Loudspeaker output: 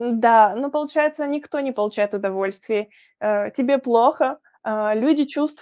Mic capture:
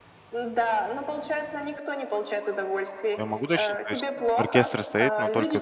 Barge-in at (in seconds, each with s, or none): 3.2 s